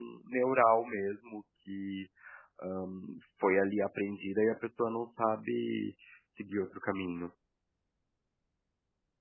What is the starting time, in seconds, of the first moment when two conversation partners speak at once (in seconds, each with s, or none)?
none